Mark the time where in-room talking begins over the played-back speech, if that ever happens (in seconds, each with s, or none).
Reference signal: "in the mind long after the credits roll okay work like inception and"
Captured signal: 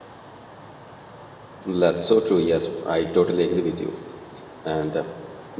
1.6 s